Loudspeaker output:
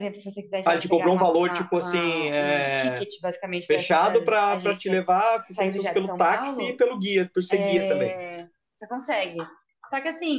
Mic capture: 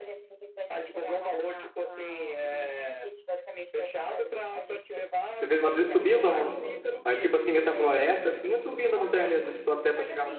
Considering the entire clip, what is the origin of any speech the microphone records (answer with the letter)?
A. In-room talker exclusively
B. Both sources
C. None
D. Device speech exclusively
B